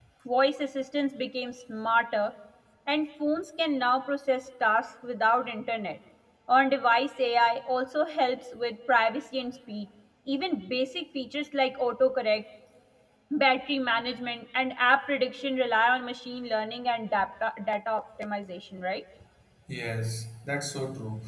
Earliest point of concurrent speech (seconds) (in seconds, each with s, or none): none